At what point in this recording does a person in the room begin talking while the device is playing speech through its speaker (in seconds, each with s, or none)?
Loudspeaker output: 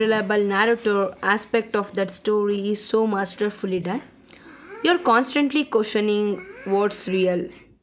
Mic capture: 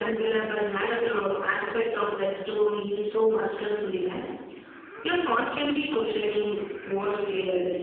none